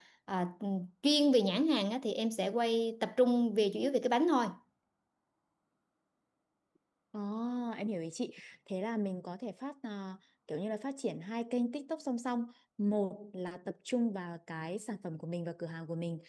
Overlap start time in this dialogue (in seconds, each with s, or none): none